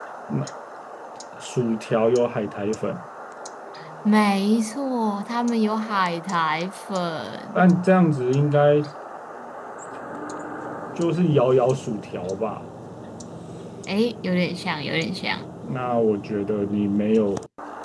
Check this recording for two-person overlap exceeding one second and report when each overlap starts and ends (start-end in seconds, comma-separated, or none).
none